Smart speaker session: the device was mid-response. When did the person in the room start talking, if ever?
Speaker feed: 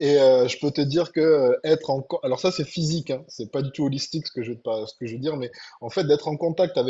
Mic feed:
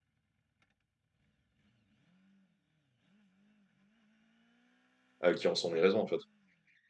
5 s

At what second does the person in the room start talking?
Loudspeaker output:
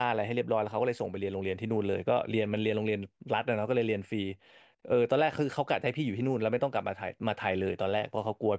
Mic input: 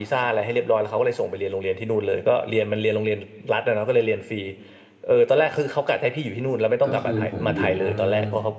7 s

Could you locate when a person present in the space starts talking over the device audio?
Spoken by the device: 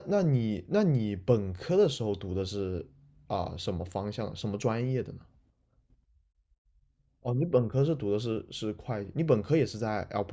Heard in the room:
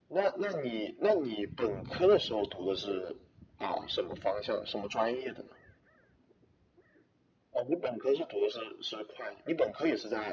none

